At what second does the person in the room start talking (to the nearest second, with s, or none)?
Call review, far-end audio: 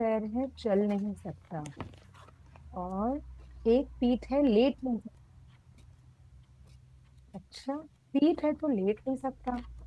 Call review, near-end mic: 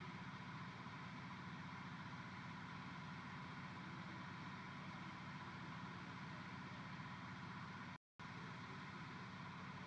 none